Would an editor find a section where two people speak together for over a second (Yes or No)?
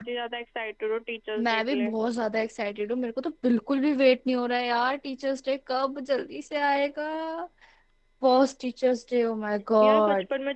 No